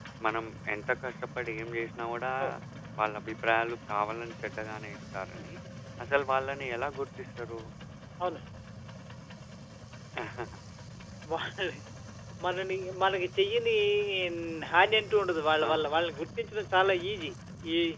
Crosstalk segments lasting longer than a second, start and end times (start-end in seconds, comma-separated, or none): none